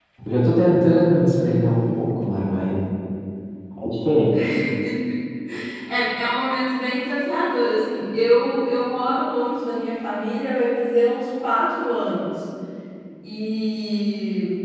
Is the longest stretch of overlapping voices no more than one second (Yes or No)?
Yes